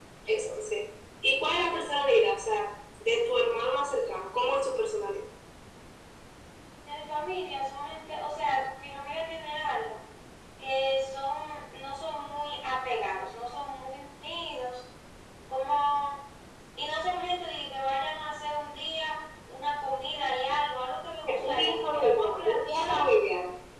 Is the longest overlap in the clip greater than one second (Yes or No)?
Yes